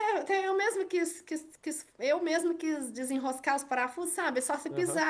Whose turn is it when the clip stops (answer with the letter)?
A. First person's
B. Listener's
A